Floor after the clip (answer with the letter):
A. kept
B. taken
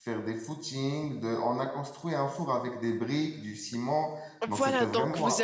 B